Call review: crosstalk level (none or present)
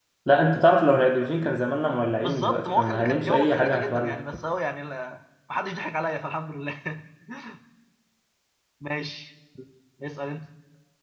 present